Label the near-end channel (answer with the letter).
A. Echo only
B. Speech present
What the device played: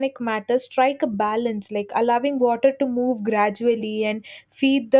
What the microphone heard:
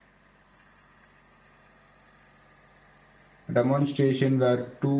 B